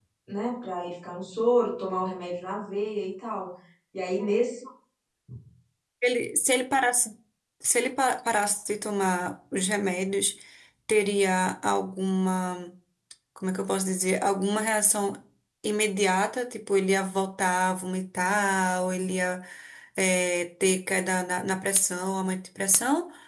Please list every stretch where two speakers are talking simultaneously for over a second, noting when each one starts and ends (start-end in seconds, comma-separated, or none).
none